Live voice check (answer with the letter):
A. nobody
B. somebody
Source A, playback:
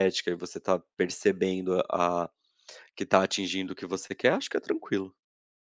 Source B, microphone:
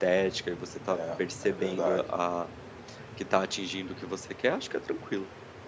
B